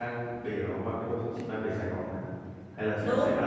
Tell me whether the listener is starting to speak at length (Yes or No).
Yes